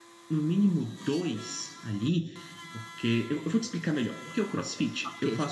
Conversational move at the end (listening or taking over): listening